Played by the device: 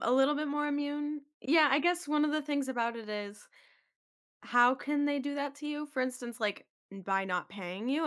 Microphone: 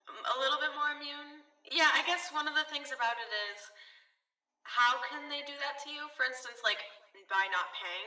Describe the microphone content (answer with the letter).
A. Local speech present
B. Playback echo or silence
B